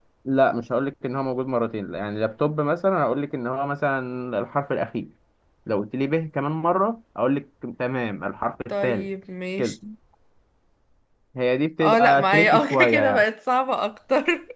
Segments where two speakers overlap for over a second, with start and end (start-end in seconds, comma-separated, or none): 11.8-13.2